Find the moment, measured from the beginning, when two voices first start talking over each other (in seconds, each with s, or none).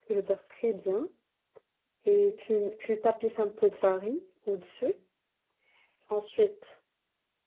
none